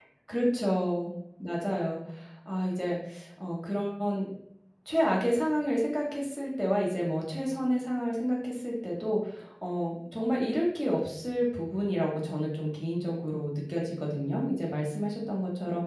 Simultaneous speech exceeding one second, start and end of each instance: none

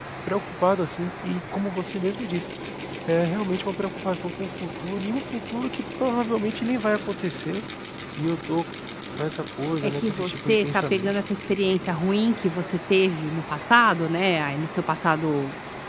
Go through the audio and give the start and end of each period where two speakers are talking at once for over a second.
9.8-11.1

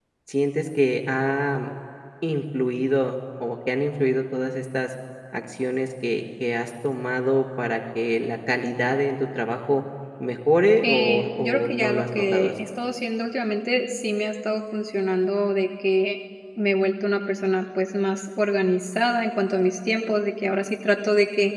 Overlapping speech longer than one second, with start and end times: 10.8-12.5

